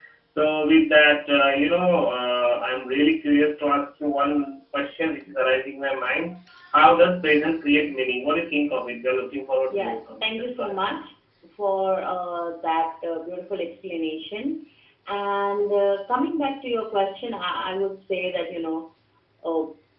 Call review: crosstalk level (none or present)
present